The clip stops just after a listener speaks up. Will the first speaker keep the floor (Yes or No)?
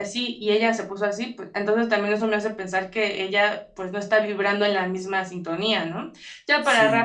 Yes